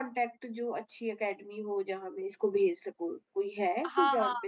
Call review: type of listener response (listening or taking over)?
taking over